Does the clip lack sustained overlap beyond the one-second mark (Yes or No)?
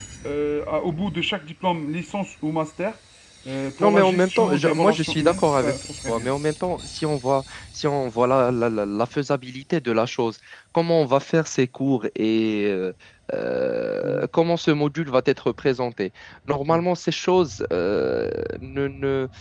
No